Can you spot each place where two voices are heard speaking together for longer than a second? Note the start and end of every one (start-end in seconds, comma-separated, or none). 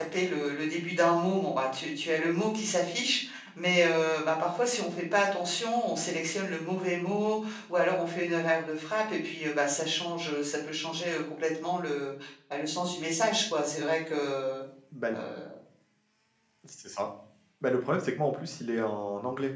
none